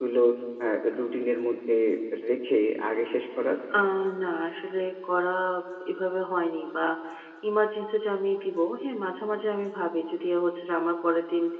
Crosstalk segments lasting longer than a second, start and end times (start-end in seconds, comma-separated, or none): none